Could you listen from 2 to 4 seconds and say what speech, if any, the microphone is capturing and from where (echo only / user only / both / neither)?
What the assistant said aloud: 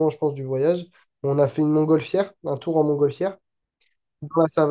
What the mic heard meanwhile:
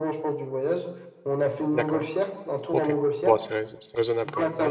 both